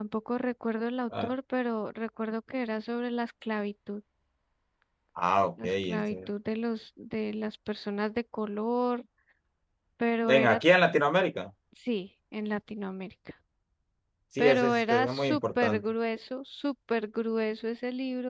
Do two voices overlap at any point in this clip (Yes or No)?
Yes